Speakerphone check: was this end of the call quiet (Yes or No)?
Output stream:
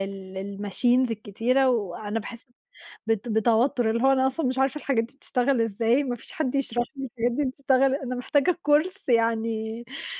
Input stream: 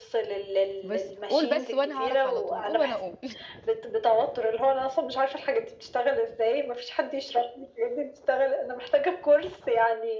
No